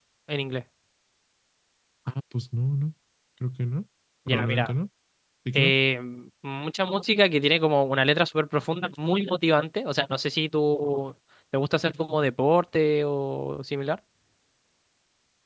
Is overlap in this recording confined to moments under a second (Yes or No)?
Yes